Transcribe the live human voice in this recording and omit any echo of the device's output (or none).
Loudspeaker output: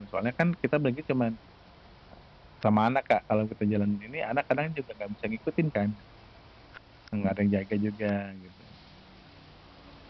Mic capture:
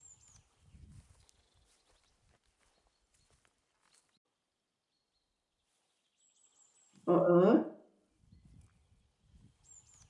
Heeh.